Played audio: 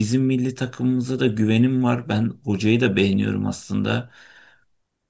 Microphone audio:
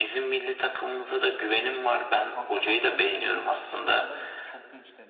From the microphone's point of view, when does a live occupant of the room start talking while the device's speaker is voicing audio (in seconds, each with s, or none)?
2.2 s